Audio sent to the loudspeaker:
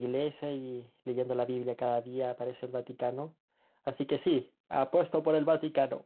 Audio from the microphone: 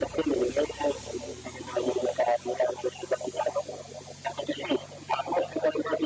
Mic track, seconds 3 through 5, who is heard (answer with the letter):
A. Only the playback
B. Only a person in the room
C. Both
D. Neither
A